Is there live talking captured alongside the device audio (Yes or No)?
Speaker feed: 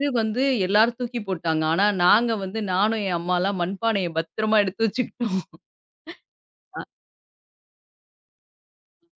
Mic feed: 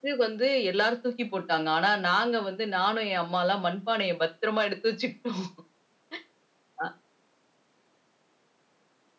No